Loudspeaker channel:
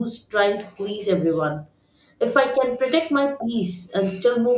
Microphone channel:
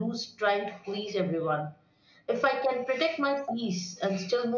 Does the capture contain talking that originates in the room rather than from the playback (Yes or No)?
No